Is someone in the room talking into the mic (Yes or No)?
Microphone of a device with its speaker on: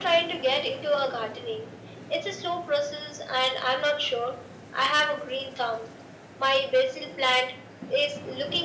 No